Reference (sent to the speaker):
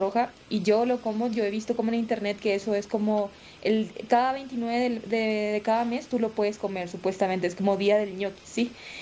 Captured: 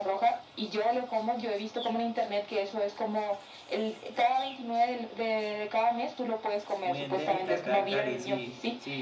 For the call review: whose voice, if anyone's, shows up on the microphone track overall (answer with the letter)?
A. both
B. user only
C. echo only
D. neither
A